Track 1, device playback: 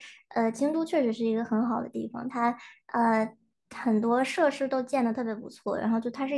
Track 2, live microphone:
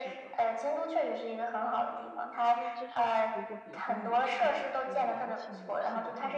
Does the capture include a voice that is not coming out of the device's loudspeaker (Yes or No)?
Yes